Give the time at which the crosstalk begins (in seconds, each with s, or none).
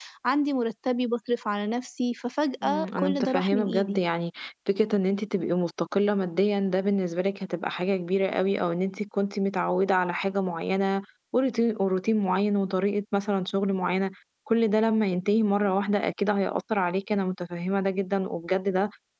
2.6 s